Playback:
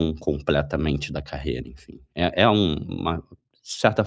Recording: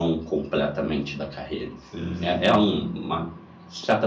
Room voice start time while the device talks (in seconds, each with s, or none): 1.7 s